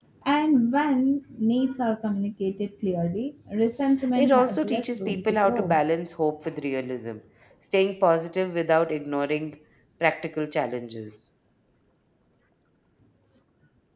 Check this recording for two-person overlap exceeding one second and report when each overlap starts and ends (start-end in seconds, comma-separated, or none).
4.2-5.8